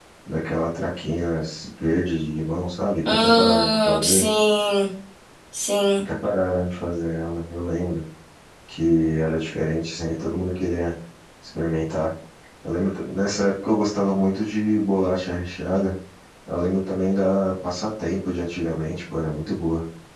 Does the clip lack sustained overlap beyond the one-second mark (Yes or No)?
No